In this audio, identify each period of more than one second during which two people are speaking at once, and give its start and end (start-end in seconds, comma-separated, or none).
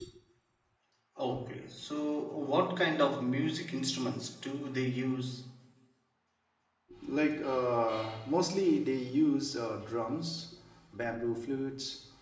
none